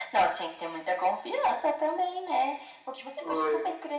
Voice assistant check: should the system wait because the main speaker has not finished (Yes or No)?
Yes